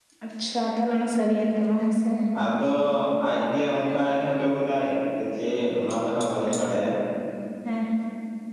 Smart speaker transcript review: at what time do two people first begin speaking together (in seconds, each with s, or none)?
none